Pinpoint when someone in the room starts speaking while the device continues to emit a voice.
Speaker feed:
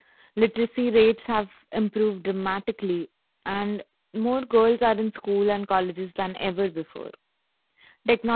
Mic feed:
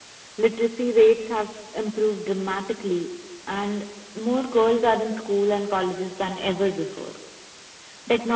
none

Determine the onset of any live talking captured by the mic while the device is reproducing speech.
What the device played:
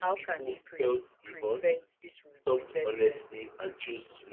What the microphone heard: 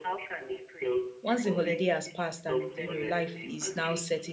1.3 s

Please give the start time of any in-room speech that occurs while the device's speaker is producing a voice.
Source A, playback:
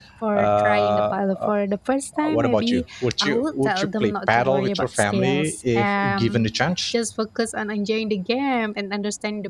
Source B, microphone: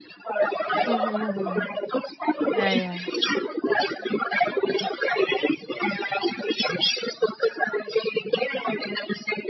0.9 s

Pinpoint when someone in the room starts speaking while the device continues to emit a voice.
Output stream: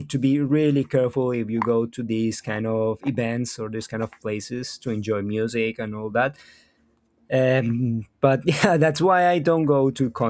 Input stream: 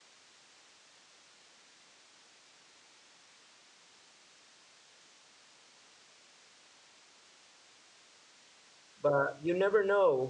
9.0 s

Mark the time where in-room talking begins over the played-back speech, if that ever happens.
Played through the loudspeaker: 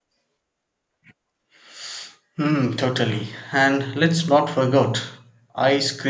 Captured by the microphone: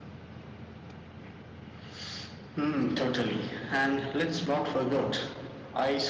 none

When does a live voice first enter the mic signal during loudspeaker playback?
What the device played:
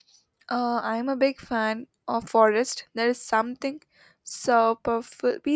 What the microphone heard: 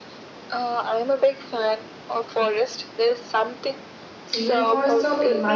4.3 s

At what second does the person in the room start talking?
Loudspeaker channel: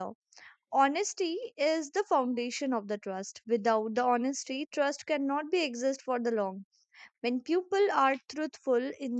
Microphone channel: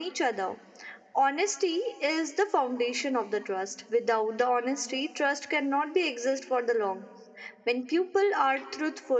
none

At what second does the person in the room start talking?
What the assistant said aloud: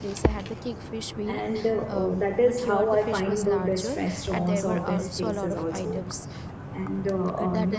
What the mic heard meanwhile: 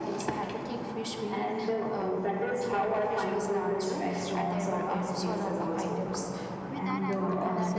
6.7 s

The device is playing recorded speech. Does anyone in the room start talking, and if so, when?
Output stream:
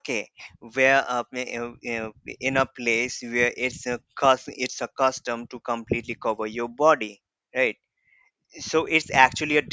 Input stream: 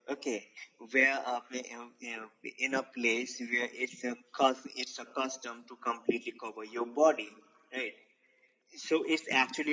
none

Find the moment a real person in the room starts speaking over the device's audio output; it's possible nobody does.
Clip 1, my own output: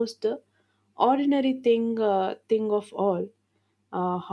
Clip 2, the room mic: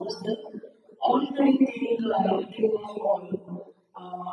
none

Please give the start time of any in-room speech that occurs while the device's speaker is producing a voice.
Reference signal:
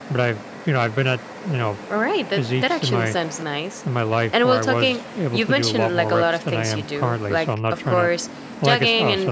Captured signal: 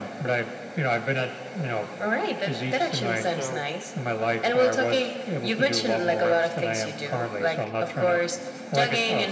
3.2 s

